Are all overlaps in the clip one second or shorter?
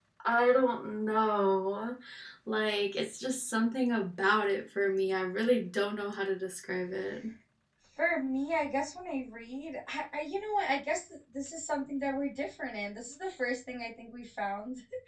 Yes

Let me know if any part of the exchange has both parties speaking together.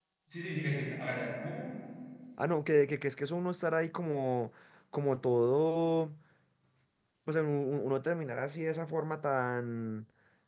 No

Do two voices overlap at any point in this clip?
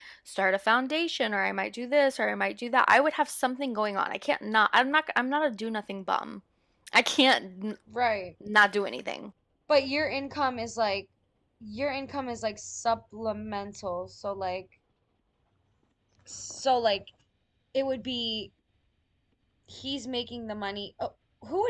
No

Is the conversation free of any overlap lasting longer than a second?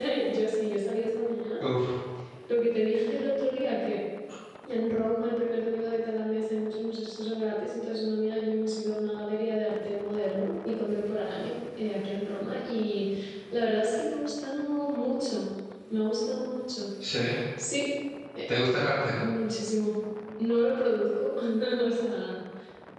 Yes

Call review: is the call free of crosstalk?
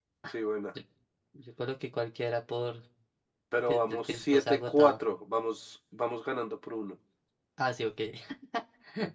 No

